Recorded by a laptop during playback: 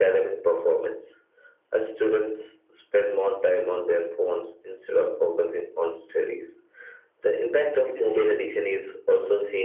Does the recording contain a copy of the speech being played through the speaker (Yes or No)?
Yes